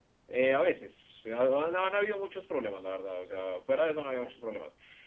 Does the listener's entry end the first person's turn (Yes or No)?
No